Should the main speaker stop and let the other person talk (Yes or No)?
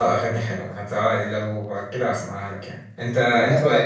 No